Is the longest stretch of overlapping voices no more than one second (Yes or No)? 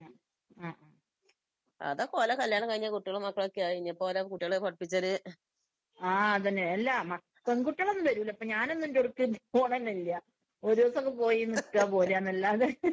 Yes